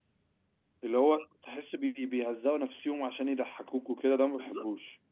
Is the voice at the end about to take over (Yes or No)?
Yes